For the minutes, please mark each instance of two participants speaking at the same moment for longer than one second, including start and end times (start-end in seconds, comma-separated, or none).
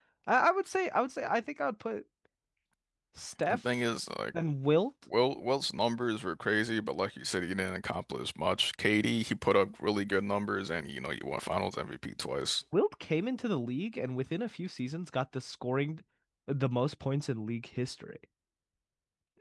none